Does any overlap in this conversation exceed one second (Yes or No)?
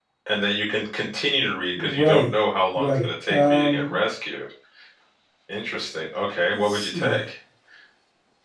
Yes